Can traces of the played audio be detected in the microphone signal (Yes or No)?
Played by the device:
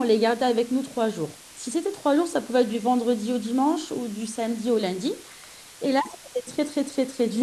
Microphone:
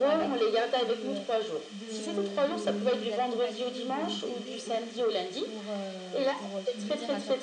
Yes